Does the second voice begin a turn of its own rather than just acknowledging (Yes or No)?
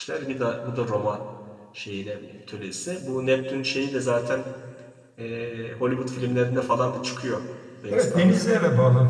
Yes